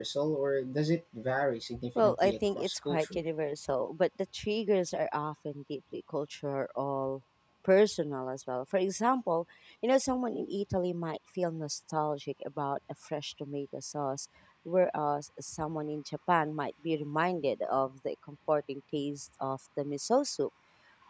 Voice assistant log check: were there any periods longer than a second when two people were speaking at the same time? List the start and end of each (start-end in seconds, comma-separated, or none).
1.9-3.2